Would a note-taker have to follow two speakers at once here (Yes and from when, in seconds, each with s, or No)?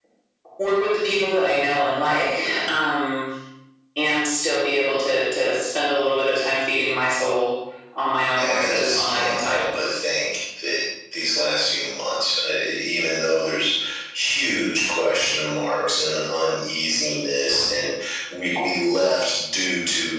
Yes, from 8.4 s